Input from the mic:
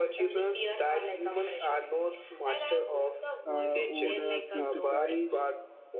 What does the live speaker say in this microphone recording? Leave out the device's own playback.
uh, would uh, prioritize

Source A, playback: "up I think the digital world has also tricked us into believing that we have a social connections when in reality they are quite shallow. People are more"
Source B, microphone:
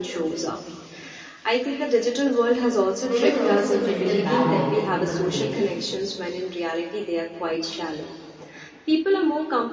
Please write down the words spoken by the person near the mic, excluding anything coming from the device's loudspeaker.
there is also the mental barrier that people create

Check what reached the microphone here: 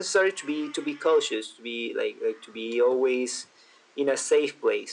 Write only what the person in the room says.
none

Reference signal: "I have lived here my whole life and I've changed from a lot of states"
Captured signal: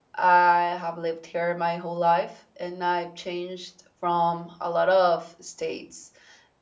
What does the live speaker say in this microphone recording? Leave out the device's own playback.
none

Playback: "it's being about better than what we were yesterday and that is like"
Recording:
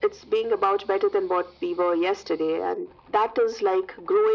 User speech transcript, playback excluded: none

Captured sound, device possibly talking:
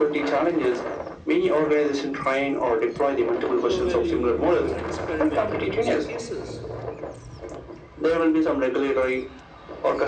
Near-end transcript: and low value or you know experimental use of cases.

